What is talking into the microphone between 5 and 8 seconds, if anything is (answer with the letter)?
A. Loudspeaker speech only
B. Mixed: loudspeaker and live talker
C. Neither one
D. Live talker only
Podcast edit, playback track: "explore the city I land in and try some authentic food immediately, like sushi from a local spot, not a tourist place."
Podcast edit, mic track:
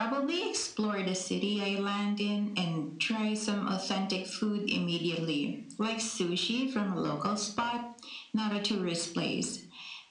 A